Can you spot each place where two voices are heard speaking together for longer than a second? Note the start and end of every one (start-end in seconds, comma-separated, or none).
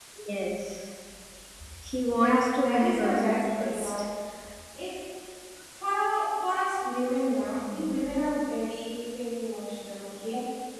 2.1-4.0